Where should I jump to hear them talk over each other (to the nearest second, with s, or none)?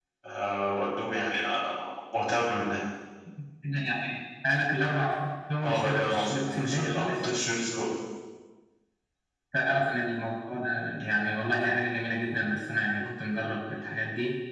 6 s